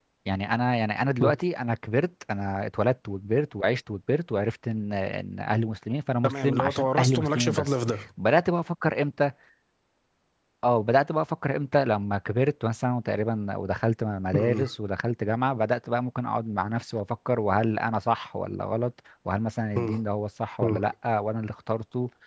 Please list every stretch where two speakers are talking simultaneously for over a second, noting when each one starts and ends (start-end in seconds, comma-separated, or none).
6.2-8.0